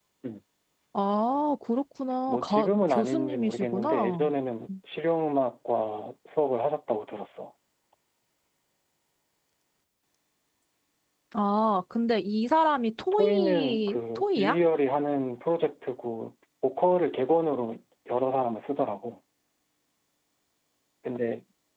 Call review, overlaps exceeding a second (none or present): present